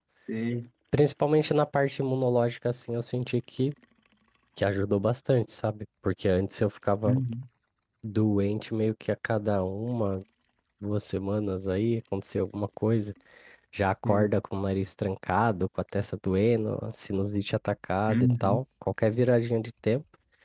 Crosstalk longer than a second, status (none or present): none